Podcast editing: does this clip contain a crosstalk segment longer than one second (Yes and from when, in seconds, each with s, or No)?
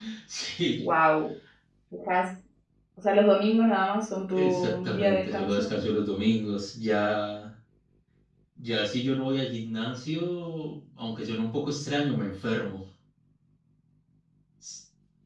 Yes, from 4.3 s